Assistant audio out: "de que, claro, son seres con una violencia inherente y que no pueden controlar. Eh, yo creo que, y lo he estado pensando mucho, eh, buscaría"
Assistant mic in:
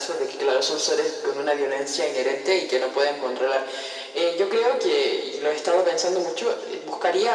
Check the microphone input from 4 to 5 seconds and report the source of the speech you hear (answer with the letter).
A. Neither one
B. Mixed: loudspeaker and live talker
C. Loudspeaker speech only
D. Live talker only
C